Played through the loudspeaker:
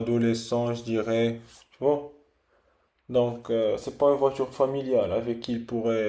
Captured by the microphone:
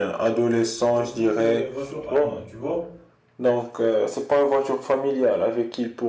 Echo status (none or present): present